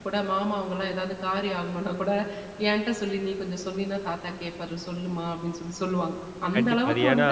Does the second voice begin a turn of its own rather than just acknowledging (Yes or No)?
Yes